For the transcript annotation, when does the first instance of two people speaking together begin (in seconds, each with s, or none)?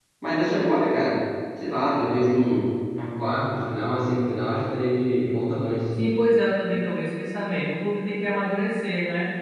none